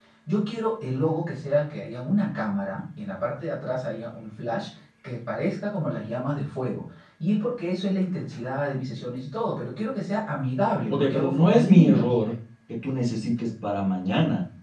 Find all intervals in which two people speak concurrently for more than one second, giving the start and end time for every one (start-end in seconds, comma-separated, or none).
10.9-12.1